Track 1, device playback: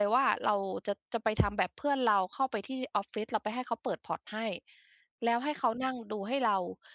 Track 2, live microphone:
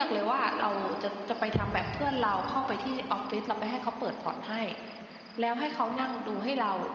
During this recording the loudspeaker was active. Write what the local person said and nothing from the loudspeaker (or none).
none